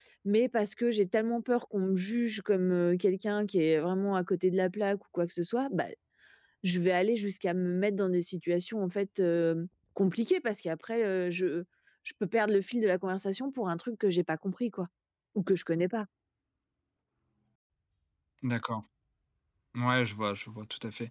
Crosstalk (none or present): none